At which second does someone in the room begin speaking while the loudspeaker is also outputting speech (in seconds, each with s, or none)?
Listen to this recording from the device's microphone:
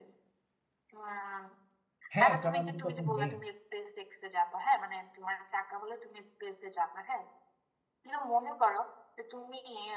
2.1 s